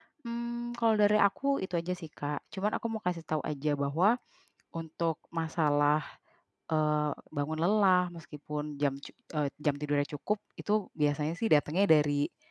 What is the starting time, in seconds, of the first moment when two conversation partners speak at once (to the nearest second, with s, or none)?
none